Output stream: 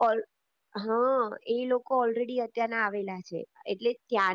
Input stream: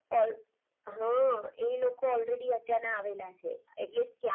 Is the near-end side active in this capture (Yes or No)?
No